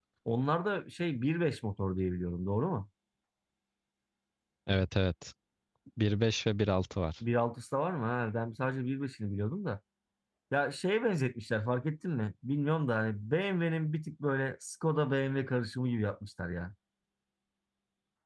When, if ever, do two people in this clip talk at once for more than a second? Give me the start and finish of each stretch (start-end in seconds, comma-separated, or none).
none